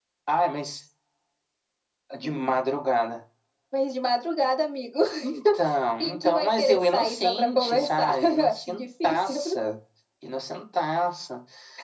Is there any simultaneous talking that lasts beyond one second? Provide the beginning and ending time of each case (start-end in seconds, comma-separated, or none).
6.0-9.4